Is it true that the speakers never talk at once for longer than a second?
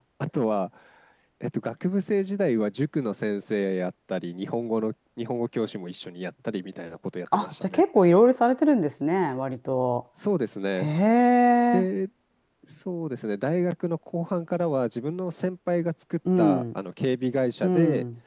Yes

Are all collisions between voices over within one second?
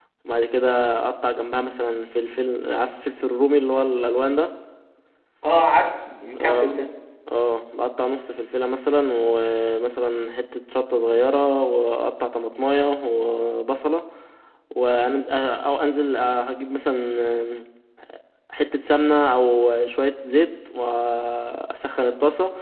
Yes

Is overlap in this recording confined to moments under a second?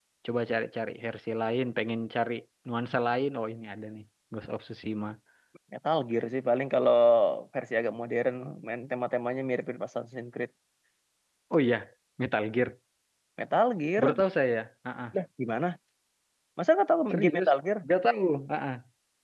Yes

